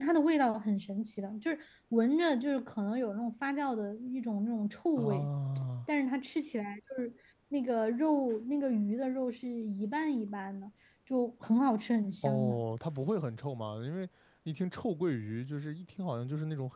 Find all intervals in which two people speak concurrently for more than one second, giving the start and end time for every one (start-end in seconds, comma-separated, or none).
none